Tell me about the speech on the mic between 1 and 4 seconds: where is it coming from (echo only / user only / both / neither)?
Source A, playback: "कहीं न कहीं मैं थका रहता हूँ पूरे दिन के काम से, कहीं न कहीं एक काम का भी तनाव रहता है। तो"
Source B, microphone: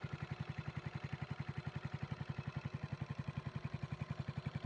neither